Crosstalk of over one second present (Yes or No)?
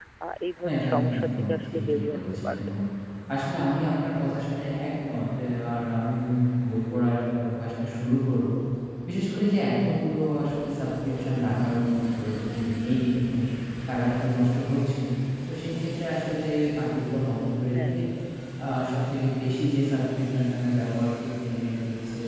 Yes